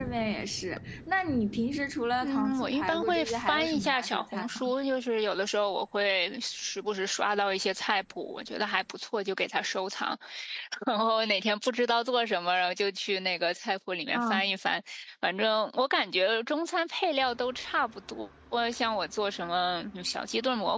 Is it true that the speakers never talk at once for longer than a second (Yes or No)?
No